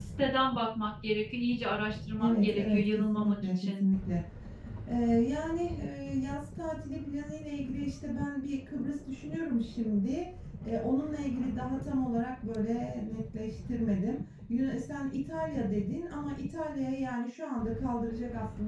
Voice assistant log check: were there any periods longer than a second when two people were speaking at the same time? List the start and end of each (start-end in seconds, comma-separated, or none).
2.2-3.8